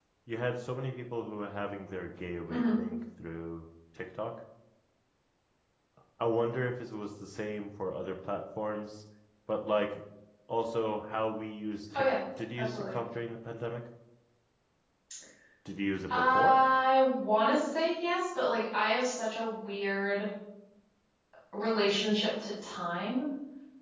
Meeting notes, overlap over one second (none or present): none